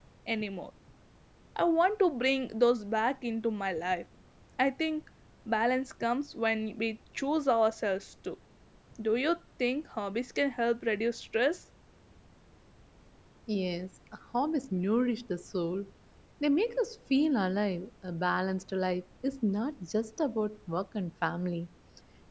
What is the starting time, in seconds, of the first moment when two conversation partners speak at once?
none

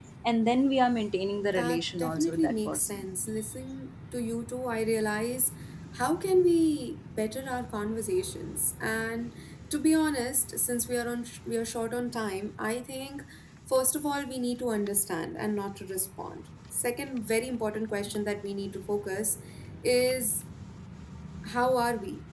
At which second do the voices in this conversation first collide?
1.6 s

